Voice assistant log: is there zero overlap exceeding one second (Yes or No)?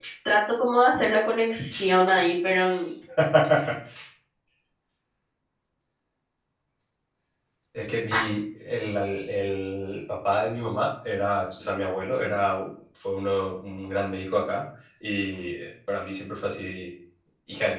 Yes